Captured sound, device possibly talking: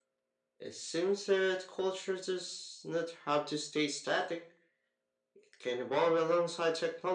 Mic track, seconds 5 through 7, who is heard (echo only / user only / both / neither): echo only